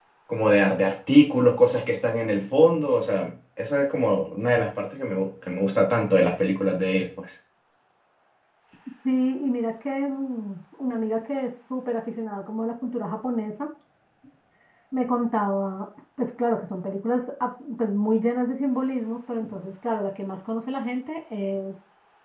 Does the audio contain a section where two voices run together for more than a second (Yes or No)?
No